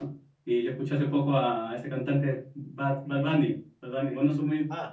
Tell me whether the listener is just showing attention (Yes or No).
Yes